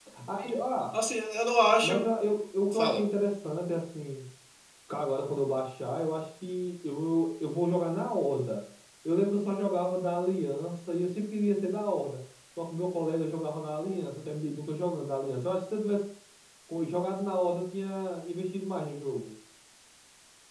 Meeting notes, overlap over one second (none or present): none